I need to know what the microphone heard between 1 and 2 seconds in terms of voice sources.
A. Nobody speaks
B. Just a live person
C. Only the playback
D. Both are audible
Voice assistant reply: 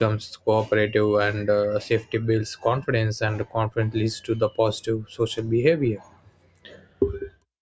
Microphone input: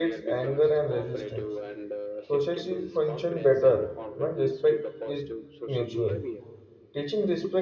D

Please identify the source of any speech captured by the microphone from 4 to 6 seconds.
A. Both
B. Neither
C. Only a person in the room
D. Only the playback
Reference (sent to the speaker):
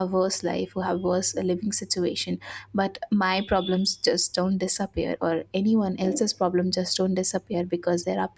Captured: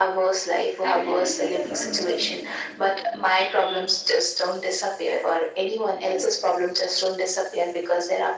D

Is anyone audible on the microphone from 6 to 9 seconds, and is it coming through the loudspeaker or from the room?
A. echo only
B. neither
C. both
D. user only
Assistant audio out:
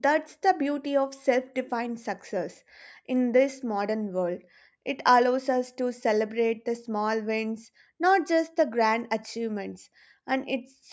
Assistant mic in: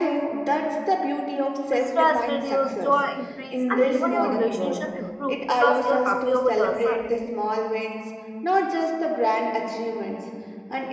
C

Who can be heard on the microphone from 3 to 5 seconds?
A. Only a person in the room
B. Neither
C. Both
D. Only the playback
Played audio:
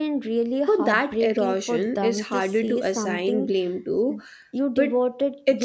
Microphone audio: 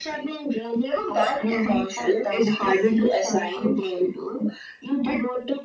D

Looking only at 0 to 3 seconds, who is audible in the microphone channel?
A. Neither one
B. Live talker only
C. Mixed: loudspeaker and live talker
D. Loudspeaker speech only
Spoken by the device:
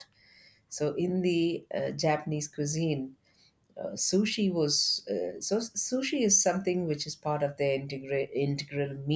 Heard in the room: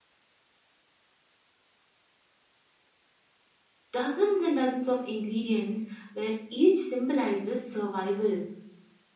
A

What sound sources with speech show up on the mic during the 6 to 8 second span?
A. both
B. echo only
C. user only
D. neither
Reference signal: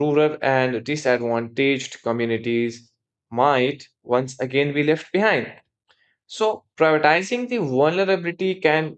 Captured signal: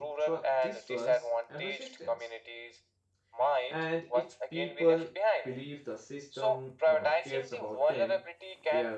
A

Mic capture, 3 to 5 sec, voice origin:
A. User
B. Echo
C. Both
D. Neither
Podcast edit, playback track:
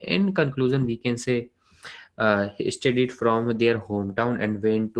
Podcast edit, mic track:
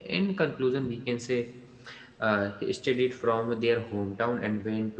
B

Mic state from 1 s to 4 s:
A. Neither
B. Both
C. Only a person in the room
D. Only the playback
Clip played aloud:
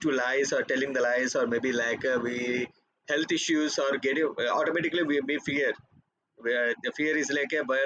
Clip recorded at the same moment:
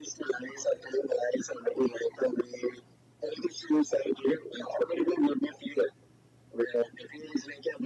D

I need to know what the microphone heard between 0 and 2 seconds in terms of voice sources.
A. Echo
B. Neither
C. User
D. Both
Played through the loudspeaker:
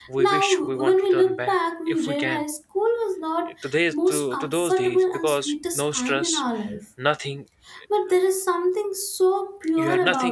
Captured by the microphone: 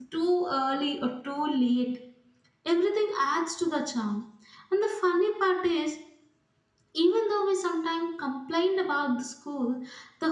C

